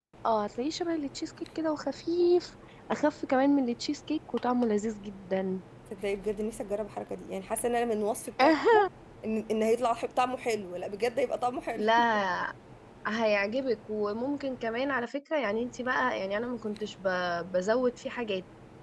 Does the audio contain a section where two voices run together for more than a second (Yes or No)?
No